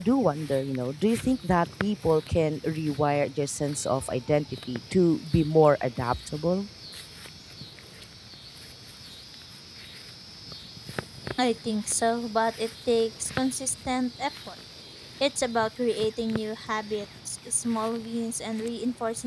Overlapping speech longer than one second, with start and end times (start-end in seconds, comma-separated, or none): none